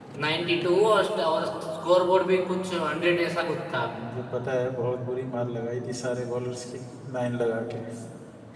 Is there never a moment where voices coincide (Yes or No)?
Yes